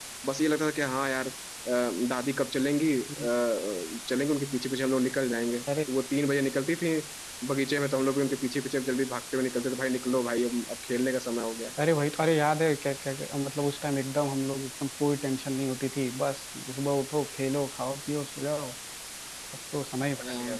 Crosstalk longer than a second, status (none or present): none